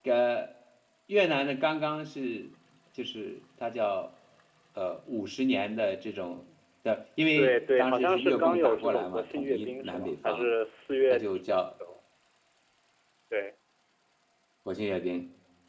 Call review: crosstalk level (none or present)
present